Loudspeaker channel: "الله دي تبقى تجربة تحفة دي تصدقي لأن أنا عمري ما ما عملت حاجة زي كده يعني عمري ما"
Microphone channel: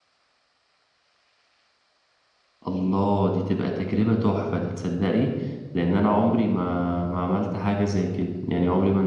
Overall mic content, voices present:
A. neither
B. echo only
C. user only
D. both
B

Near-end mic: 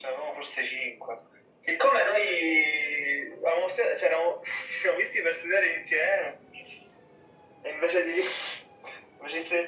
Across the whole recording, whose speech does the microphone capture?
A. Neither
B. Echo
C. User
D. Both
B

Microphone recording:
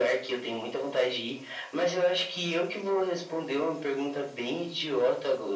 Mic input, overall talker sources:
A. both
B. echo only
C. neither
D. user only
B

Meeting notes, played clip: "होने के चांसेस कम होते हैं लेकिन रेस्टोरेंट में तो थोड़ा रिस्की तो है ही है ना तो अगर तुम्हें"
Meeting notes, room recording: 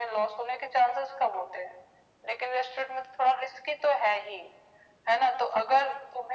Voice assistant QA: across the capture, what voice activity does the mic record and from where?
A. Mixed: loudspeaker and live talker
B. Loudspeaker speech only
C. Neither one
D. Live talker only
B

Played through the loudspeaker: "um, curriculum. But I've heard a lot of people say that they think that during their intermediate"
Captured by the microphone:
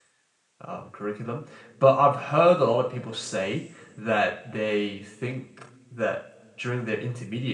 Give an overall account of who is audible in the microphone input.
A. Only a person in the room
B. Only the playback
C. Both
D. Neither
B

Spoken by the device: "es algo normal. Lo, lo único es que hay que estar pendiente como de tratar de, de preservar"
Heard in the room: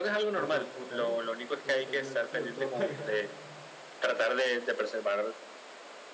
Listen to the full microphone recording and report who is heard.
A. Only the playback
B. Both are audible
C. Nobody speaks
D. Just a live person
B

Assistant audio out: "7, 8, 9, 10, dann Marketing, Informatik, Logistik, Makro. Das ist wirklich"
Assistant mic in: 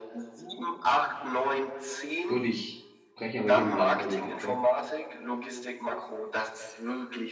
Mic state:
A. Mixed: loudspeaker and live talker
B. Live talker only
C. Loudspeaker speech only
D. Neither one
A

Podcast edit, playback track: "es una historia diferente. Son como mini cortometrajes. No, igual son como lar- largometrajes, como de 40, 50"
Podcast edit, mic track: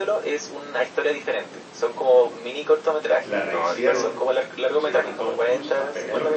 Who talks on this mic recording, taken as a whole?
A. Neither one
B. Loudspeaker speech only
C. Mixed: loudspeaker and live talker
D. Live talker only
C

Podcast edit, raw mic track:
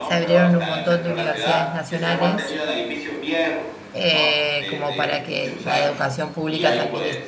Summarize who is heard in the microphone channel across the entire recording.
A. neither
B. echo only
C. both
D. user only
C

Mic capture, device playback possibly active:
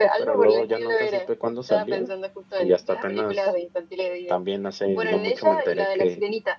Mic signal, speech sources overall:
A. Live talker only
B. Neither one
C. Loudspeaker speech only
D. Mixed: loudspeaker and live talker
C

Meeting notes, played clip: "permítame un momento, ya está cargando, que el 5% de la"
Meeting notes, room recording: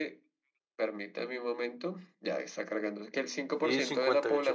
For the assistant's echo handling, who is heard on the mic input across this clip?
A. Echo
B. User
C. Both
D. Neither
C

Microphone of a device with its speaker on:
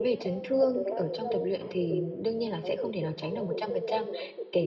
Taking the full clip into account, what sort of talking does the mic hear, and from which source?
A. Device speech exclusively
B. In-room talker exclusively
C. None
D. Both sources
D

